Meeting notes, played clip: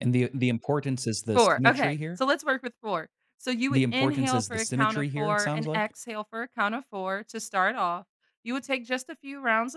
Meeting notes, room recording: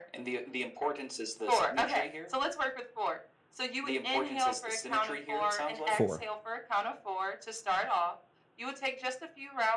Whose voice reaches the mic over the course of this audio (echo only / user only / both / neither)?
both